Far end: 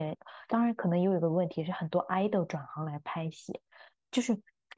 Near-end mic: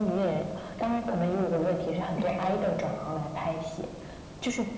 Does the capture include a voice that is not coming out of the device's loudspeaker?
Yes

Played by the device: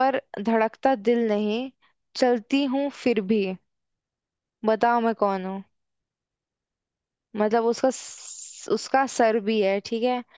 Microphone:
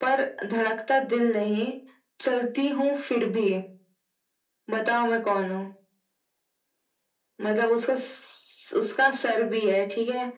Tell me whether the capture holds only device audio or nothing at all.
Yes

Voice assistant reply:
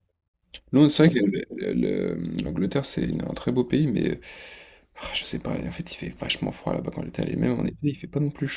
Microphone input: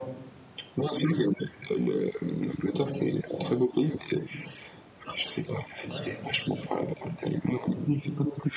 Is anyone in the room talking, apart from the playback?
Yes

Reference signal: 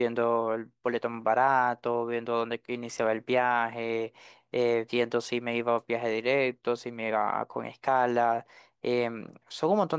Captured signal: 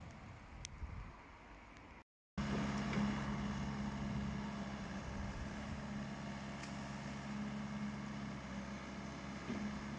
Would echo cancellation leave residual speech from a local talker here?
No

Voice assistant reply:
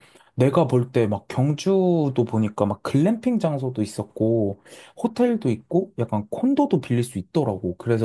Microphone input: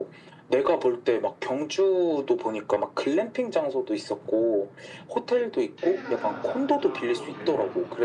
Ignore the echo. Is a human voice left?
Yes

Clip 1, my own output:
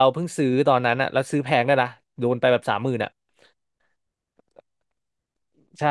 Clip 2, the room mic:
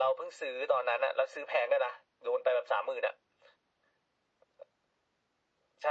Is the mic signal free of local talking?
Yes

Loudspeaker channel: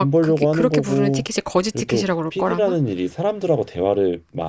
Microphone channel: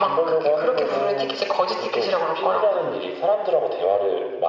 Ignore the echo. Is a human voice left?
No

